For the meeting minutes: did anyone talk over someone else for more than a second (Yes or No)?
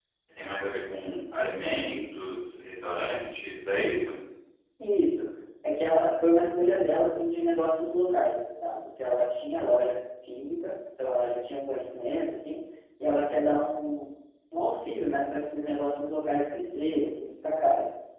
No